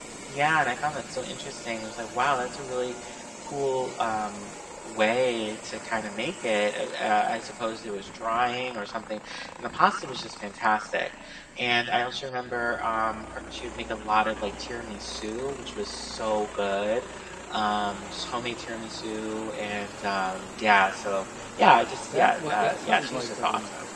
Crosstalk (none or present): present